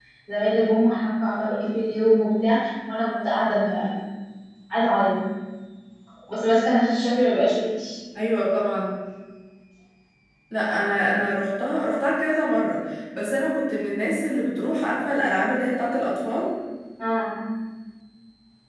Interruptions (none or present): none